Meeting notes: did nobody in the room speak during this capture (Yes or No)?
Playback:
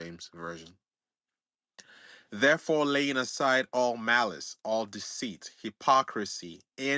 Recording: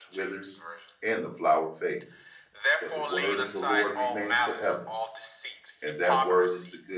No